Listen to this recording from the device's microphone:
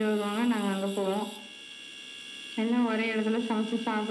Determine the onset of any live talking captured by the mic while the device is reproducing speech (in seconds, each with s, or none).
none